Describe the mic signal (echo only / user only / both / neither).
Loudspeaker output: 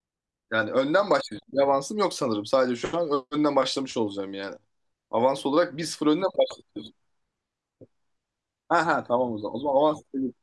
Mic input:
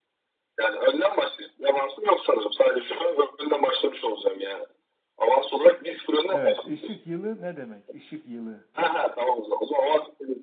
both